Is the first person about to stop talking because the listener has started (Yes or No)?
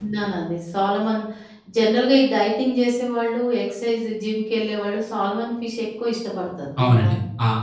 Yes